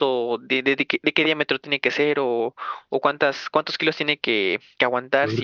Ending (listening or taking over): listening